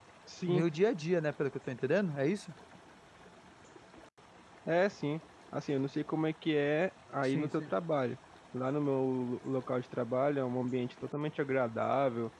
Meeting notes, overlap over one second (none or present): none